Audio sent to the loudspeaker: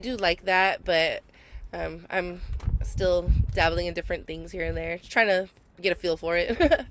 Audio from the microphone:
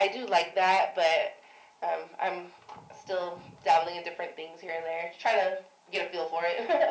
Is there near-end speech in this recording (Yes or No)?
No